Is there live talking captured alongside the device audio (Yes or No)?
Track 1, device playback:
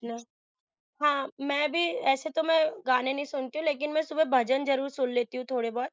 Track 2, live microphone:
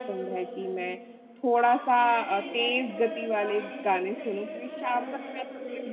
Yes